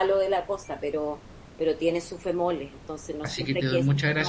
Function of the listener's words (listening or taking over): taking over